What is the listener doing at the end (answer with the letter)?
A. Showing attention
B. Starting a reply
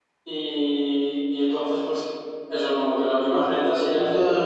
B